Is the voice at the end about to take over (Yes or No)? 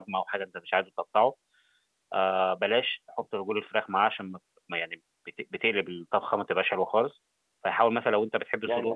Yes